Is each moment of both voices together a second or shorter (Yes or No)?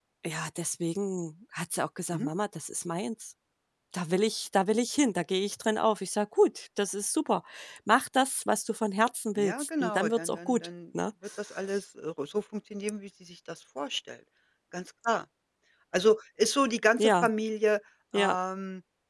No